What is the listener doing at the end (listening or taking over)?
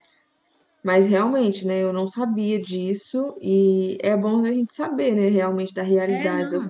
taking over